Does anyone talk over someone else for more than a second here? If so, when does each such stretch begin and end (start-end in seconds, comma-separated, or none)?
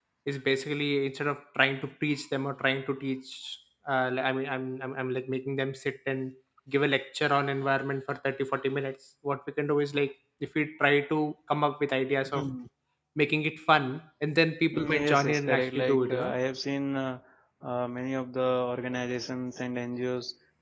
14.7-16.3